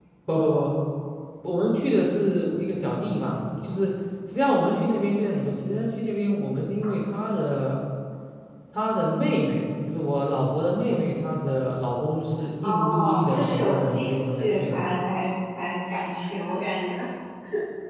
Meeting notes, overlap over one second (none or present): present